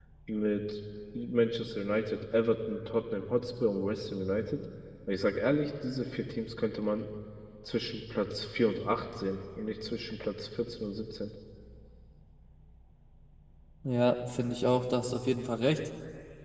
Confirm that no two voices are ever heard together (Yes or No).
Yes